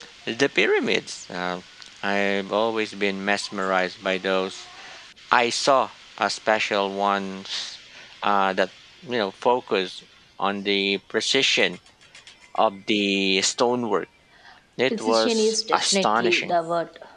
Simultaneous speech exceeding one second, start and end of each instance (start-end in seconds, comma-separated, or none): 14.9-16.5